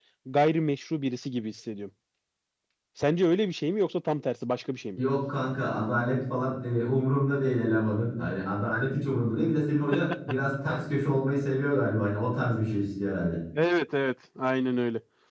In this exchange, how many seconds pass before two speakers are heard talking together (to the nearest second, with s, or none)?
none